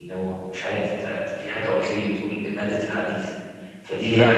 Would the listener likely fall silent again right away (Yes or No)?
Yes